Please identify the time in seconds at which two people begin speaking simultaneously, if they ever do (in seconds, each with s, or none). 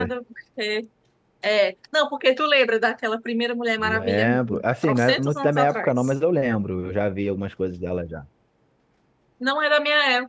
3.8 s